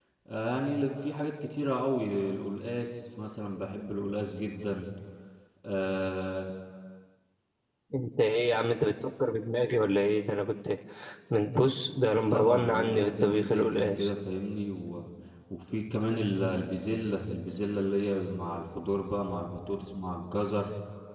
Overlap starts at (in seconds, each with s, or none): 12.3 s